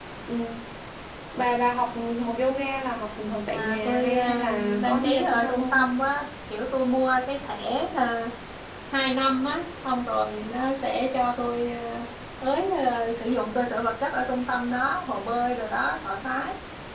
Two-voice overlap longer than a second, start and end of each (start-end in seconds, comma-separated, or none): 3.5-5.8